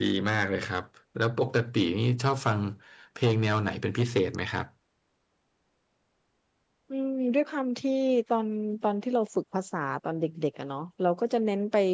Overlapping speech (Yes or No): No